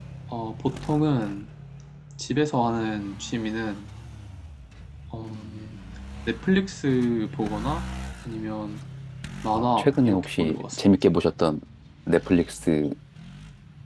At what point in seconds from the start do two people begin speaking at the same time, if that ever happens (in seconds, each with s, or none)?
9.5 s